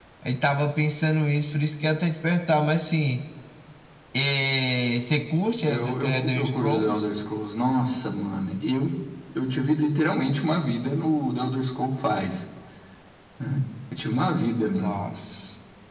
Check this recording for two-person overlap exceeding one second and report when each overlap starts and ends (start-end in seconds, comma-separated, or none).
5.7-7.0